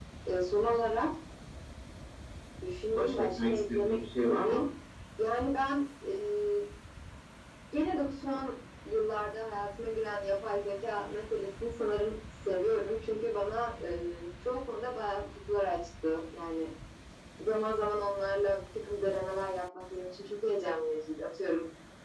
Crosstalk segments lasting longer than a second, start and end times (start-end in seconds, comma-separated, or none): 2.9-4.6